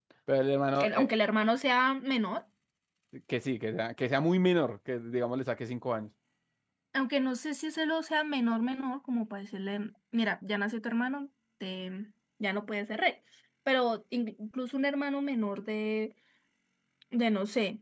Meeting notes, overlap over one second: none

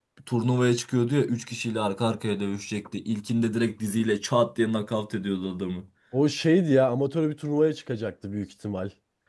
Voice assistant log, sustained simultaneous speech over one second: none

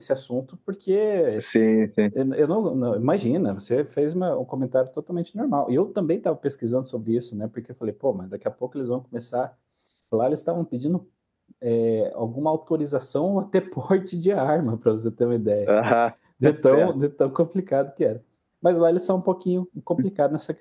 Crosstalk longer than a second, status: none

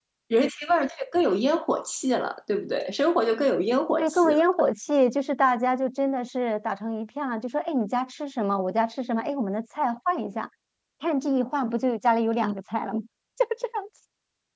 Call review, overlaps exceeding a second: none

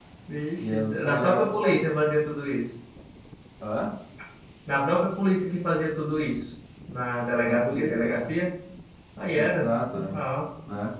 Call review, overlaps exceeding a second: present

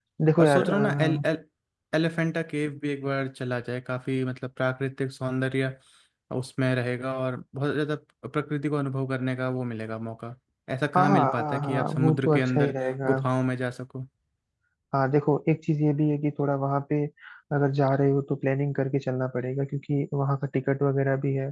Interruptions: present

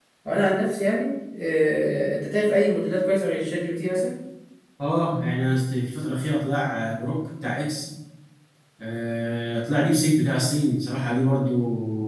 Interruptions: none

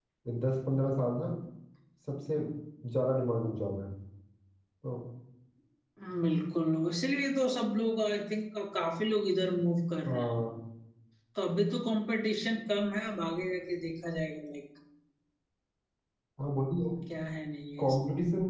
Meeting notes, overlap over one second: none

